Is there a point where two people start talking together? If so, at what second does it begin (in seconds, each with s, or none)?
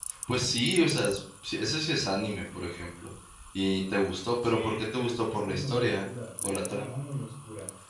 4.4 s